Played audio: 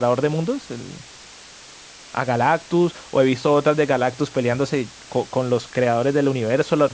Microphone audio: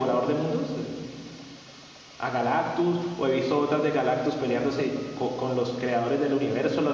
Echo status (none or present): present